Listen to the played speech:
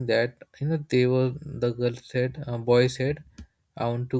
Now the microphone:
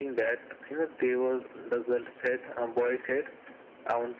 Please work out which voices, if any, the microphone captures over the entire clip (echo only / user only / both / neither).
echo only